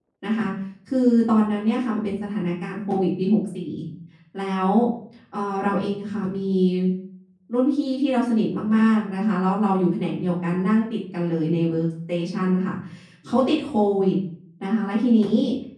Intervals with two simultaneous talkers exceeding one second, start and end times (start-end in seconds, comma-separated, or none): none